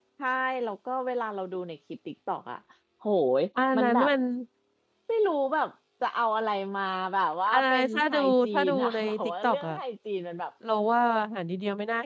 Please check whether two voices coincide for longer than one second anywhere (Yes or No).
Yes